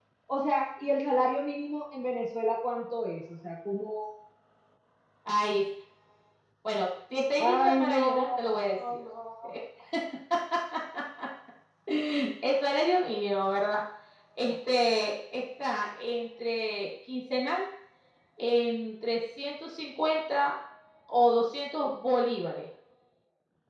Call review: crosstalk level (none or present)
present